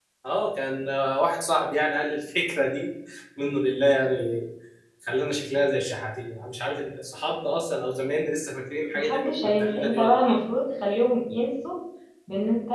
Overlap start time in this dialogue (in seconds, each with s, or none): 8.9 s